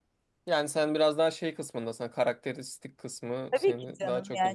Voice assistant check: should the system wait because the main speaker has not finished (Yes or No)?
No